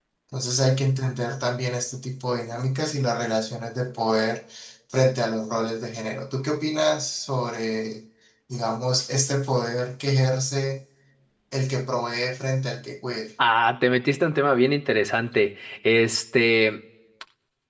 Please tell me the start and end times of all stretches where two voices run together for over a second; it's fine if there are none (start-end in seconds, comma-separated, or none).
none